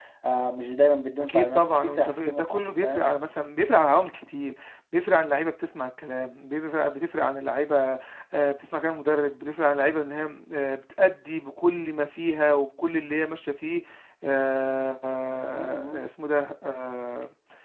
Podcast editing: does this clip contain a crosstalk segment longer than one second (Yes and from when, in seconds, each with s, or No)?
Yes, from 1.2 s